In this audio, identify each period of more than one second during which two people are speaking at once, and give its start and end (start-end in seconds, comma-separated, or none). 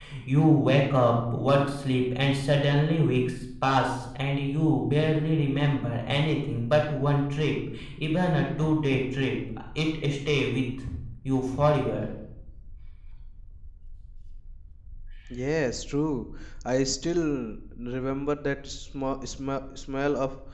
none